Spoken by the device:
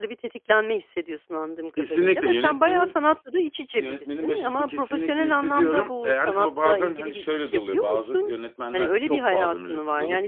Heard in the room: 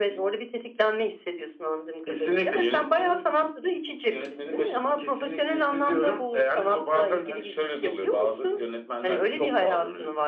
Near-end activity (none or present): none